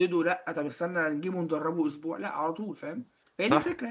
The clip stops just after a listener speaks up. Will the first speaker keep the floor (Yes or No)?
No